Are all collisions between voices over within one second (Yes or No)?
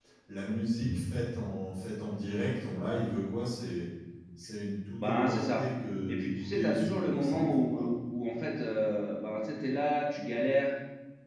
No